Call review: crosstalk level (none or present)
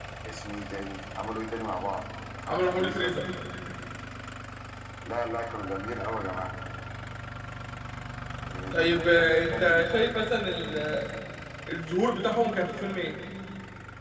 present